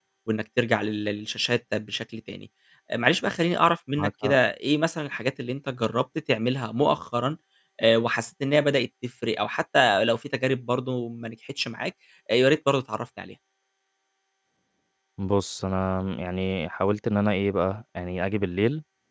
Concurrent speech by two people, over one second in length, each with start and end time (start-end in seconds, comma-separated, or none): none